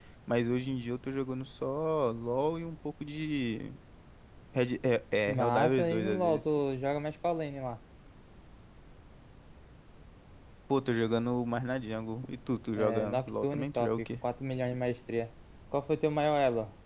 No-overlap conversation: No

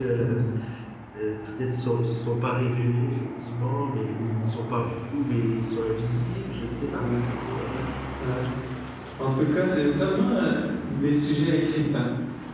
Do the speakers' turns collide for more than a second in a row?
No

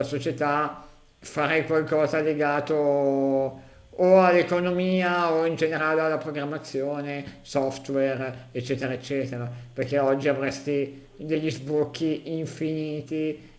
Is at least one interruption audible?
No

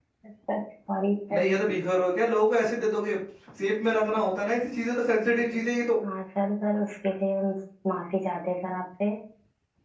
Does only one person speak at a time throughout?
Yes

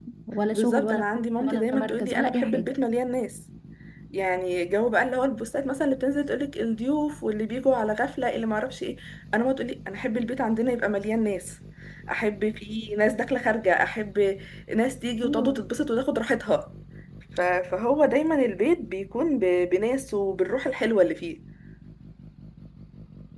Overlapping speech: Yes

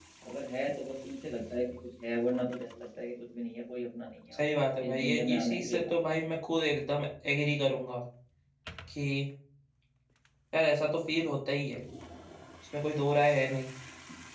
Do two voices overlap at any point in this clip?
Yes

